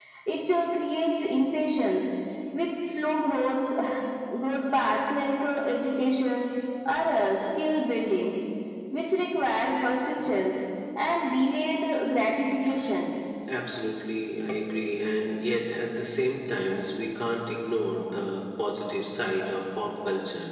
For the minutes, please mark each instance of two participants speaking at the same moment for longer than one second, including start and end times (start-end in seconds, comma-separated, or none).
none